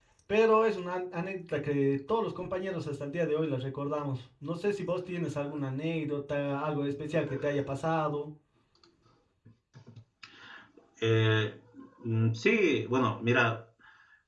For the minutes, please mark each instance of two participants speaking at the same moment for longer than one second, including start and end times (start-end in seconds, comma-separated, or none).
none